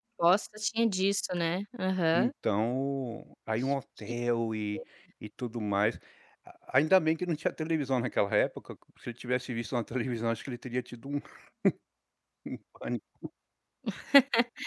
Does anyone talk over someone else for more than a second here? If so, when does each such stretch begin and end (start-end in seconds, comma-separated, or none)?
none